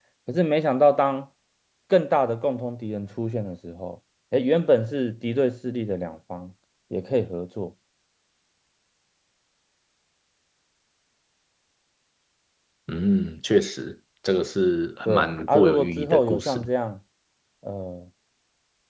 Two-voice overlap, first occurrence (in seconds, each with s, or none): 15.1 s